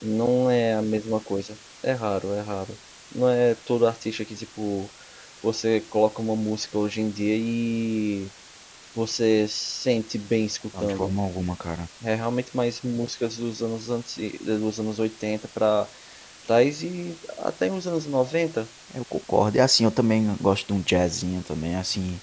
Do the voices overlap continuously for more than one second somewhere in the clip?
No

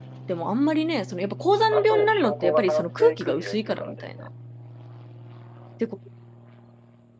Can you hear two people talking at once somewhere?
Yes, from 1.7 s

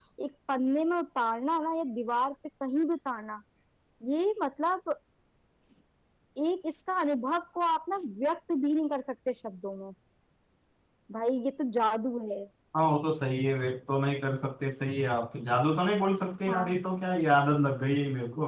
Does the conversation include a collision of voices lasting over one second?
No

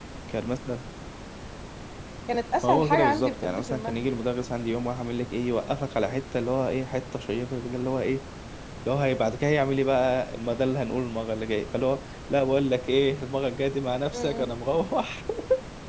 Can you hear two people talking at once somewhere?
Yes, from 2.6 s

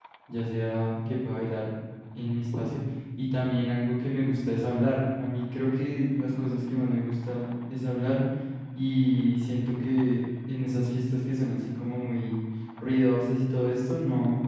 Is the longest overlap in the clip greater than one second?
No

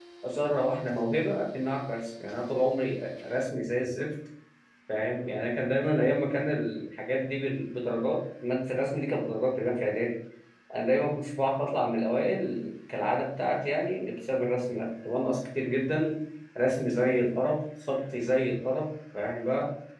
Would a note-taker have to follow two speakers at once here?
No

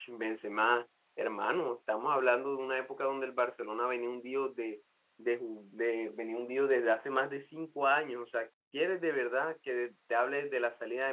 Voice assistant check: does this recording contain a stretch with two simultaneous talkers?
No

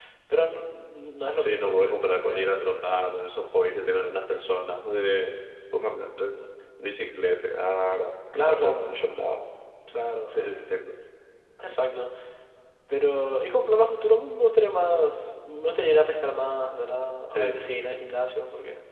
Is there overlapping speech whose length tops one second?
Yes, from 1.4 s

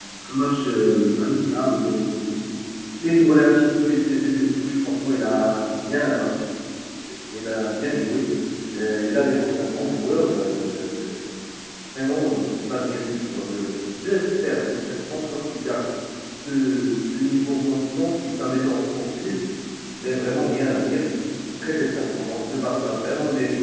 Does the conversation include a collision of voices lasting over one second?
No

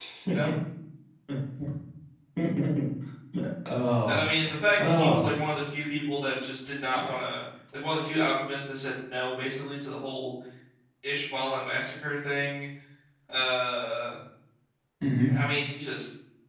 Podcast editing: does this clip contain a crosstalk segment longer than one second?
No

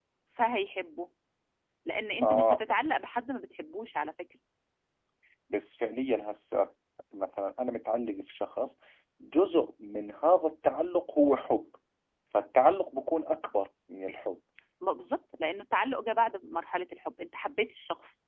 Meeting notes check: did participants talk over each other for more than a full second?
No

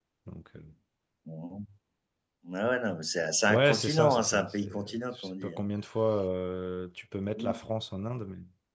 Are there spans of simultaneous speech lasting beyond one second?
Yes, from 3.5 s

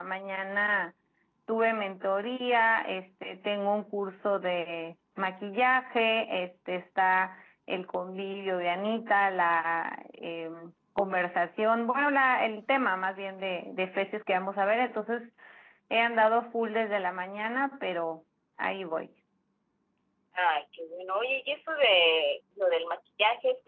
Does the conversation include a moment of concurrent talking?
No

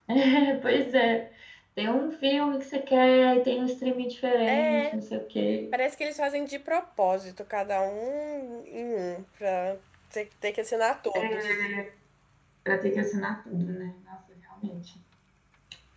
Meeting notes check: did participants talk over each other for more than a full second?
No

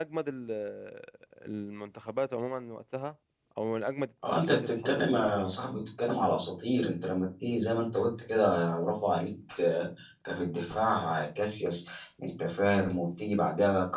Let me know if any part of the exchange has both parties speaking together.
Yes, from 4.2 s

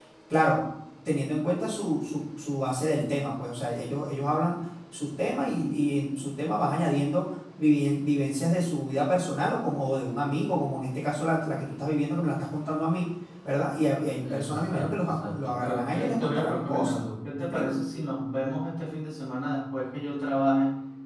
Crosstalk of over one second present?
Yes, from 14.2 s

